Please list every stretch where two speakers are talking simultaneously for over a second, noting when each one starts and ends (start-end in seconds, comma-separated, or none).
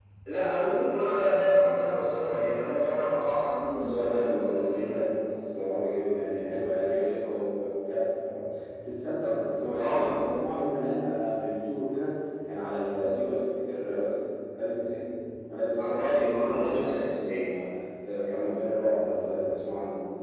3.7-5.0, 15.8-17.5